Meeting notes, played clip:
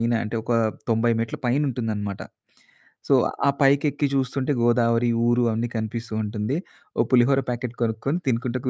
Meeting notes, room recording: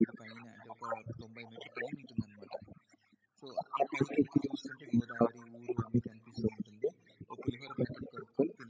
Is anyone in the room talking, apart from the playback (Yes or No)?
No